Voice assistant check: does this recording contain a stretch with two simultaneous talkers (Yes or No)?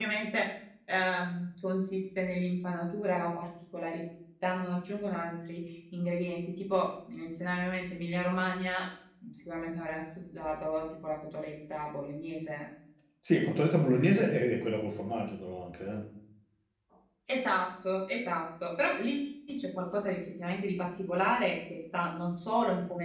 No